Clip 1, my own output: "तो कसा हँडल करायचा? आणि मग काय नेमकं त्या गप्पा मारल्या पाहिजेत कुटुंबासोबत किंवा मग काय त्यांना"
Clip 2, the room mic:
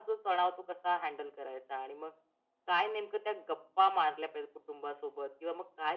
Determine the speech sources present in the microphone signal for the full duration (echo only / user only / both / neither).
echo only